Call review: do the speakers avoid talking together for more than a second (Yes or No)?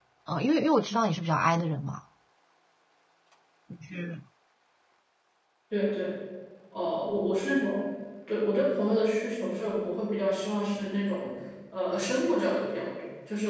Yes